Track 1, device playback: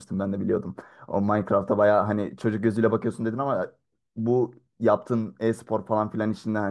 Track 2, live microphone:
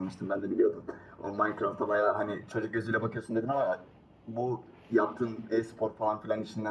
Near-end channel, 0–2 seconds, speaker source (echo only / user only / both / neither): echo only